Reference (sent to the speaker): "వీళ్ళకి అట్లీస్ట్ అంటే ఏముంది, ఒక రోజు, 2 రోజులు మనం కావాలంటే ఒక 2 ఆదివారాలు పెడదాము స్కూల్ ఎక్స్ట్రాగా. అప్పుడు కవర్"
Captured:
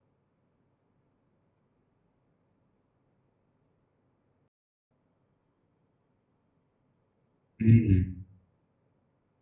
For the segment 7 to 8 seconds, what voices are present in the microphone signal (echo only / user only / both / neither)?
user only